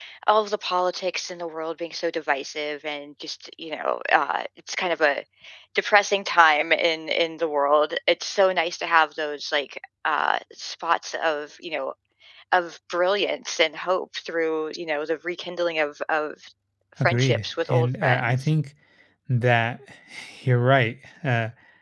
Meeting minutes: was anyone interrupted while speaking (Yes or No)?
Yes